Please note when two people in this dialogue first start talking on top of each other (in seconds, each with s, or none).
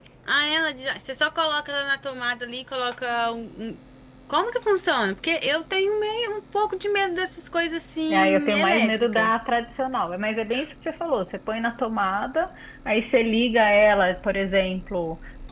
8.1 s